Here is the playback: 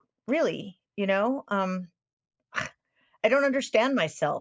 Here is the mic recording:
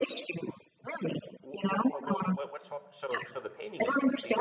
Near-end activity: present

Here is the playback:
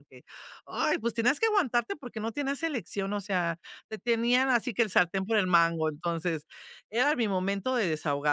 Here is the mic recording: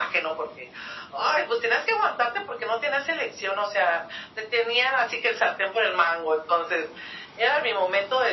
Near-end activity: none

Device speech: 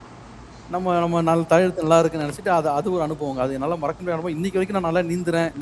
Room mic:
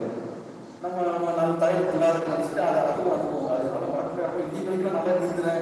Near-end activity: none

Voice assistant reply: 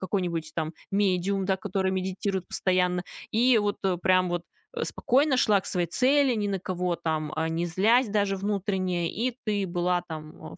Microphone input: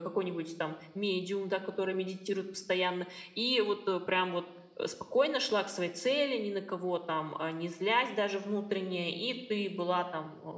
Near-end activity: none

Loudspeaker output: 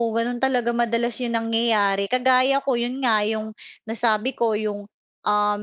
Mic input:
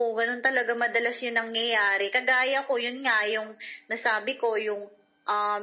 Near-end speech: none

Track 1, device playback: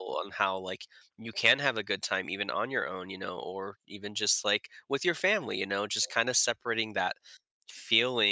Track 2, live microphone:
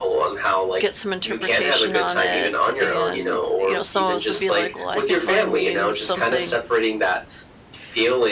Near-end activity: present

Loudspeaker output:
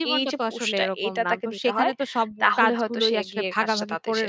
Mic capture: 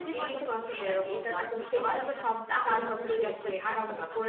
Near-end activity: present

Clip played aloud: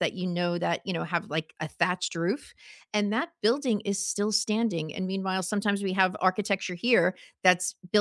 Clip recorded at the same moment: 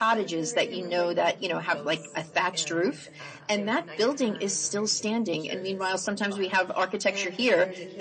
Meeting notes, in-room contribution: present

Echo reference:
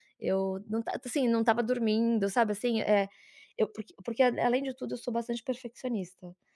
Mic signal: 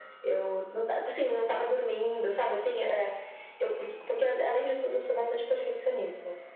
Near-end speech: none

